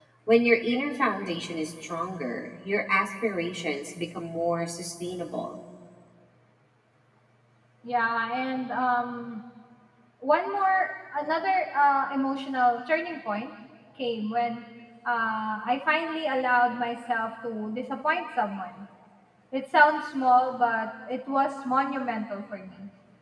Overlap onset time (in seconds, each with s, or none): none